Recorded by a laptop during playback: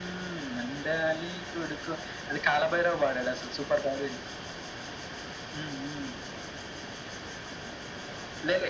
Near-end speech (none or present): none